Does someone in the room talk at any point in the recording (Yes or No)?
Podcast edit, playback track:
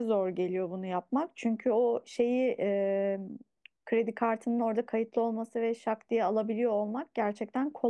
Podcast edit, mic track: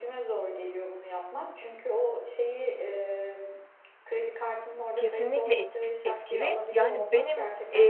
Yes